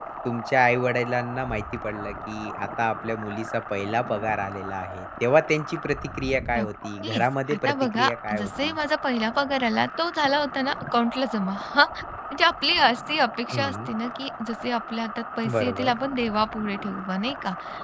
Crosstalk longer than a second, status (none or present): present